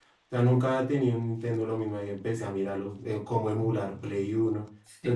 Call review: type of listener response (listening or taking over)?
taking over